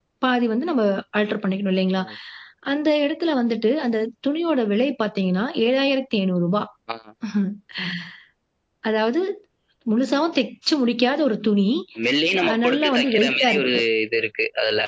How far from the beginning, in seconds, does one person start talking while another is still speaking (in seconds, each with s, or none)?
12.5 s